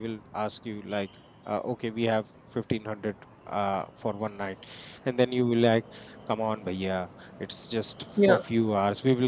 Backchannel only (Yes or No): Yes